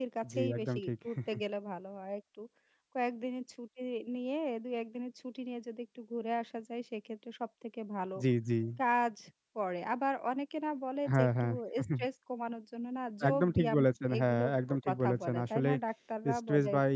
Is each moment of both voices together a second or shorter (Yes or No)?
No